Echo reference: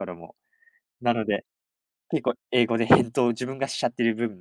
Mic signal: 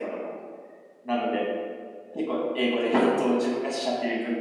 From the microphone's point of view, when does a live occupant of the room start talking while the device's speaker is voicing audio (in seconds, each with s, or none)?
none